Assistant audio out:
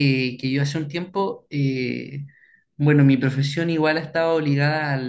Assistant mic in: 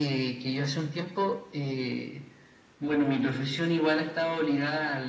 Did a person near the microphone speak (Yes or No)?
No